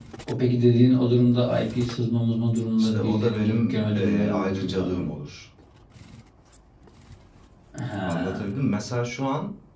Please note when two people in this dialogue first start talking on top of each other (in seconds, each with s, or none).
2.8 s